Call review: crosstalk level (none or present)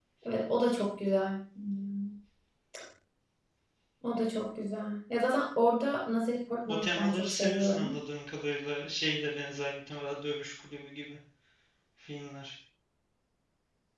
present